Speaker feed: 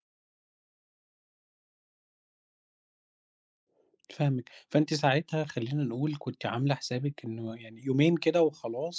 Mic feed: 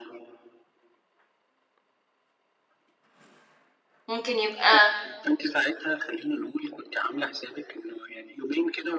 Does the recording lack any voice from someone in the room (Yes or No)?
No